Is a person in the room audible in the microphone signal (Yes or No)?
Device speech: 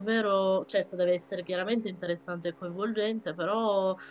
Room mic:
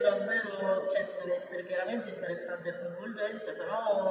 No